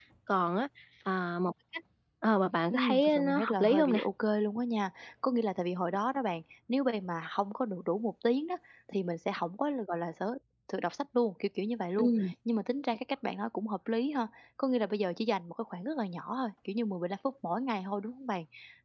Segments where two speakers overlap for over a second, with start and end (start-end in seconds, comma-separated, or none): 2.7-4.0